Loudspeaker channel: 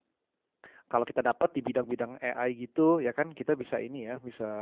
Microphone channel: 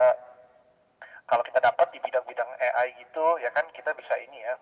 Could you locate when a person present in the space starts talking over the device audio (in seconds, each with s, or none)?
none